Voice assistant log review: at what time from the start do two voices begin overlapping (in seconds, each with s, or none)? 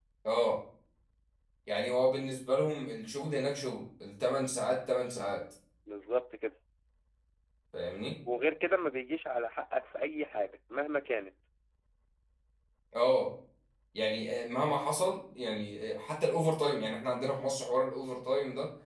none